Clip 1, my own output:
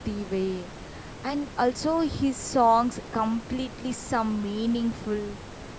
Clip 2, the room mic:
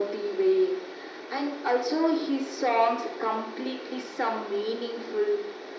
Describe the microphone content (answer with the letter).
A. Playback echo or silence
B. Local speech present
A